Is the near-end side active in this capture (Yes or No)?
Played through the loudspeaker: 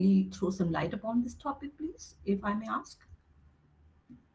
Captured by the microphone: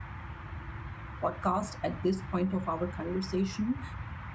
Yes